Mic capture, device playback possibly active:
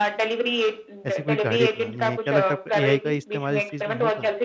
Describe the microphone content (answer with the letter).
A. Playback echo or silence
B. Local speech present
B